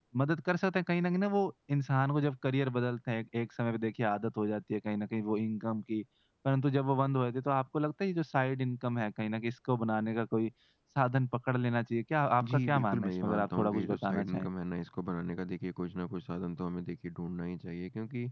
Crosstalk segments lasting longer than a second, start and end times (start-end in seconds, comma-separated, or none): 12.4-14.5